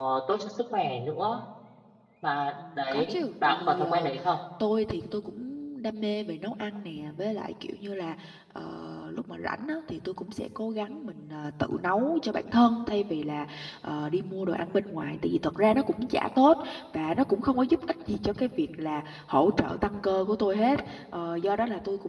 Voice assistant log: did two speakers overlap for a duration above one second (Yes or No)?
Yes